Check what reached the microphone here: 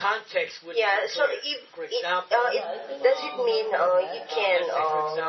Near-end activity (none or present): present